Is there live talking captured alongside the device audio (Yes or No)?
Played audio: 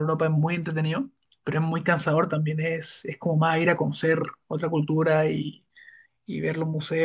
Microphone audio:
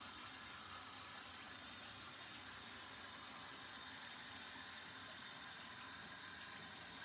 No